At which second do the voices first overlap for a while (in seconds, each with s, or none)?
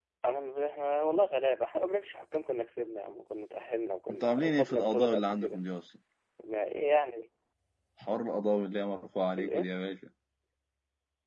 4.1 s